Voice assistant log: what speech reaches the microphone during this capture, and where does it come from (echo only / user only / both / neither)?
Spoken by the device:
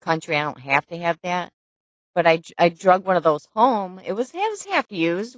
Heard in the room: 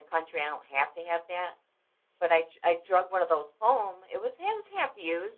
echo only